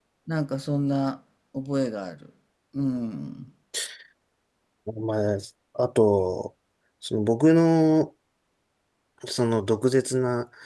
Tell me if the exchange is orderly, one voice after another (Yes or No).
Yes